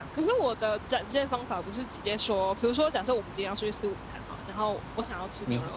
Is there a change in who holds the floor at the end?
Yes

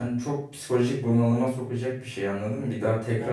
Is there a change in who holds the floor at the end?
No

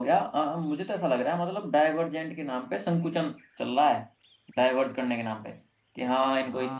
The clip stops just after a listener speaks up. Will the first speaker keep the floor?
Yes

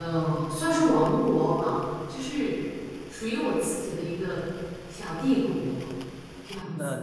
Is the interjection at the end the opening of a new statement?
Yes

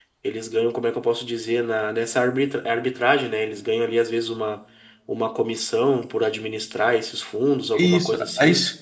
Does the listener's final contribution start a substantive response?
Yes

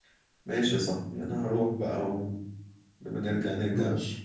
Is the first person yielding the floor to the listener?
No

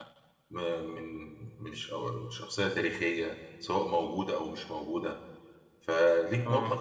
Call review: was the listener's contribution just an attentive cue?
Yes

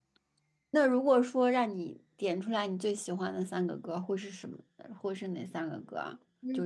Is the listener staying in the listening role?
No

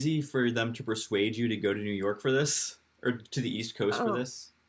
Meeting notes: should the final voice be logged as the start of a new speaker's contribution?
Yes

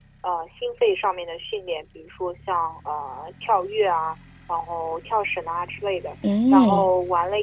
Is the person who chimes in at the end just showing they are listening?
Yes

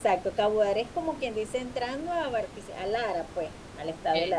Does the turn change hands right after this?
No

